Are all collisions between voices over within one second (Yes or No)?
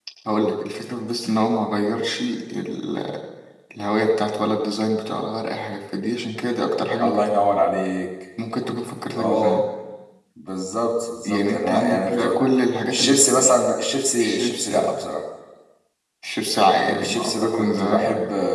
No